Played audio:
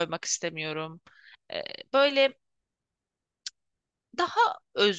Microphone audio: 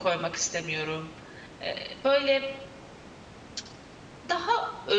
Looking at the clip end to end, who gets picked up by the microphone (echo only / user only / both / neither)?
echo only